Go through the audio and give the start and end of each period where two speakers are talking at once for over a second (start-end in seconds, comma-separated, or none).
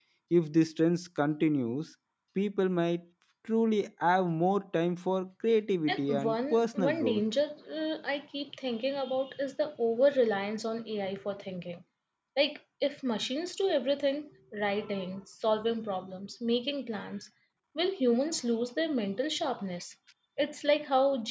5.9-7.2